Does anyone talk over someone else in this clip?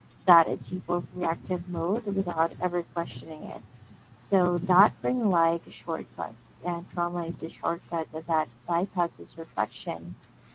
No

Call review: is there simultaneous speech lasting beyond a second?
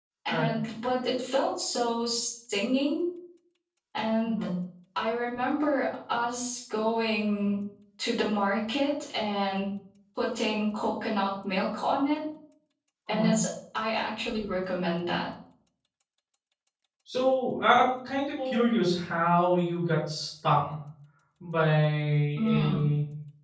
No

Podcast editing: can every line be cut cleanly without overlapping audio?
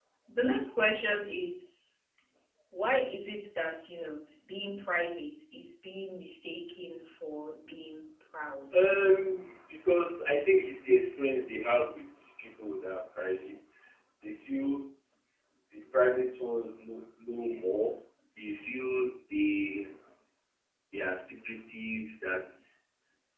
Yes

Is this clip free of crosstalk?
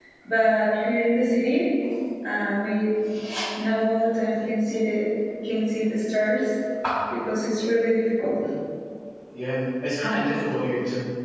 Yes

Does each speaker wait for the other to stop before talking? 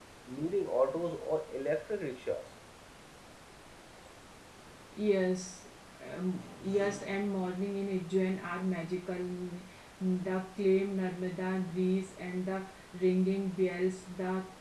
Yes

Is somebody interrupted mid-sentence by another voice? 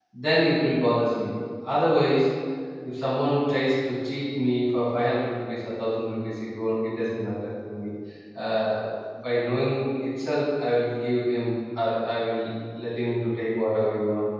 No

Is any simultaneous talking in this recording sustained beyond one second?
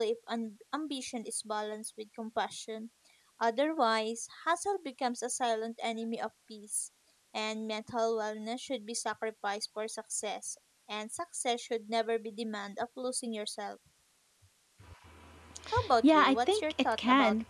Yes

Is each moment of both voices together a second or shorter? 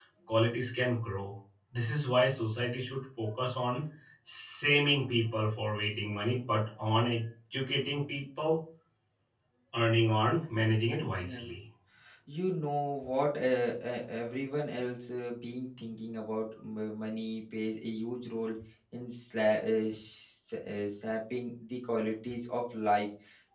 Yes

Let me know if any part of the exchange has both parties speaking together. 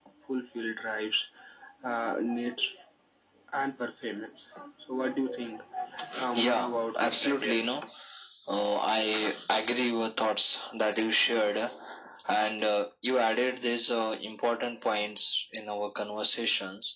Yes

